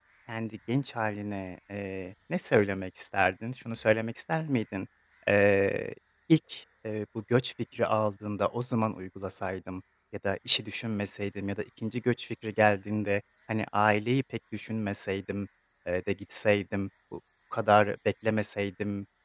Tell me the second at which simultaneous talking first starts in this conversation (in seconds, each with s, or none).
none